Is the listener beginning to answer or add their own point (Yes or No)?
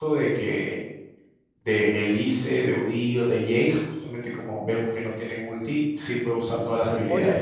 Yes